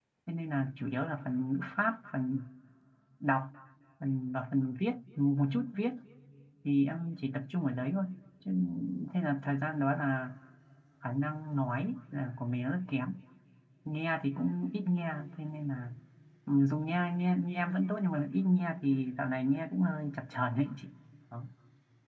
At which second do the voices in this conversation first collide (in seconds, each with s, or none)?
none